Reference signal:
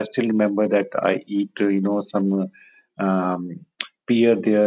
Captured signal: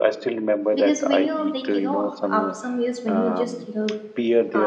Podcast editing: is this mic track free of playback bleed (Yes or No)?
No